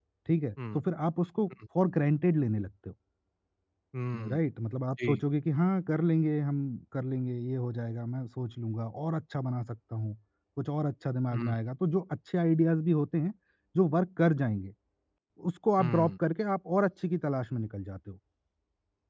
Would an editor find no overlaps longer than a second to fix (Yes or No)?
Yes